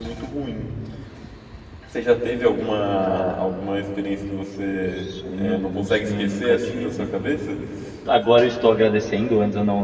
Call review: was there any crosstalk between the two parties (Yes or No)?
Yes